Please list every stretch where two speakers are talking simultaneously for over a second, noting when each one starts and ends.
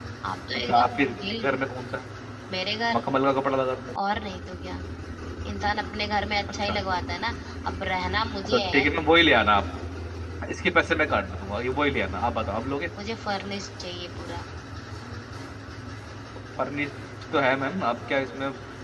none

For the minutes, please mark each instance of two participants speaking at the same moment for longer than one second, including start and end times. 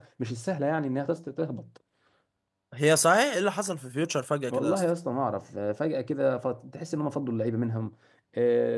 none

